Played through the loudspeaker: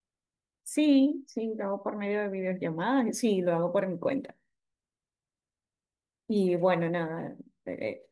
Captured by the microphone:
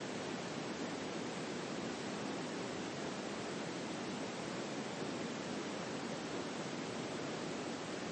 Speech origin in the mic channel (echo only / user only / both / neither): neither